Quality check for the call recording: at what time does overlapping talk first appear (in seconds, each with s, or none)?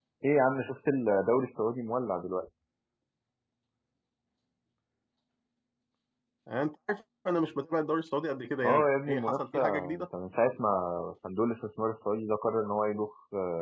8.6 s